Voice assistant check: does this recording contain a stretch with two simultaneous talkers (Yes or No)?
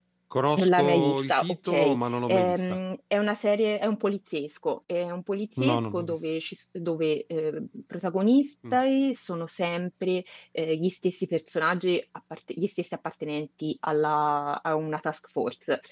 Yes